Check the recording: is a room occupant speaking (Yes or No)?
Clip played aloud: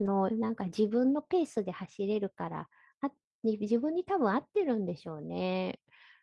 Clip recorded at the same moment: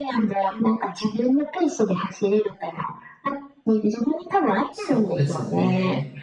Yes